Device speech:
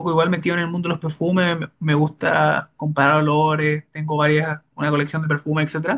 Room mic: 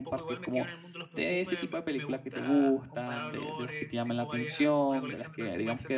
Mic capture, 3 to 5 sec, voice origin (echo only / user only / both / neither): both